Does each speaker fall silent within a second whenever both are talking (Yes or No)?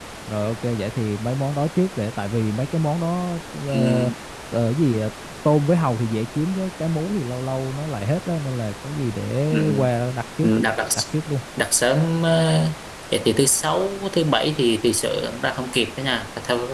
Yes